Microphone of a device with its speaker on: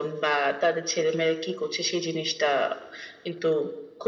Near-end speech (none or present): none